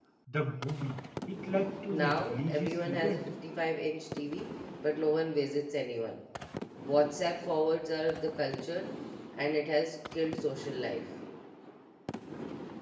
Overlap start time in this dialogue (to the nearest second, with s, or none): 2 s